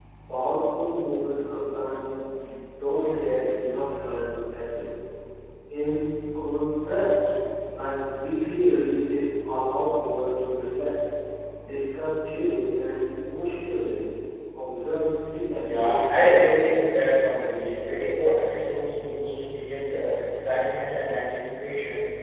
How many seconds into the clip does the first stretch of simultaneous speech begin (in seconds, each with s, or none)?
15.6 s